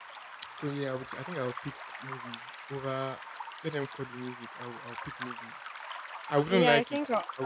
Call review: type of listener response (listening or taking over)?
taking over